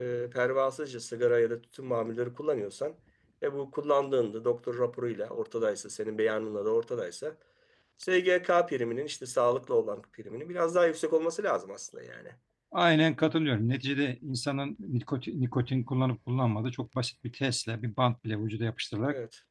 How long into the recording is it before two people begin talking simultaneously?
none

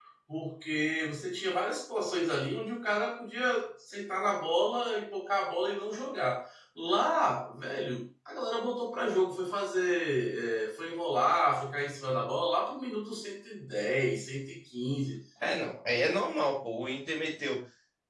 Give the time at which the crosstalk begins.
none

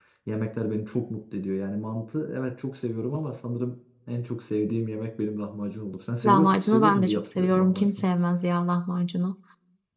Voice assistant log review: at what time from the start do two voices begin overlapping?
6.2 s

